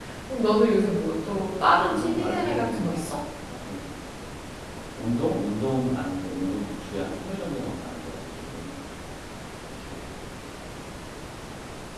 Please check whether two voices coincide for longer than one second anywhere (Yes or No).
Yes